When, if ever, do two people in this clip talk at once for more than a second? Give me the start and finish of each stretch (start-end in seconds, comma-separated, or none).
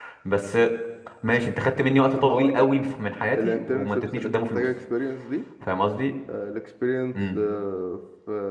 3.4-4.6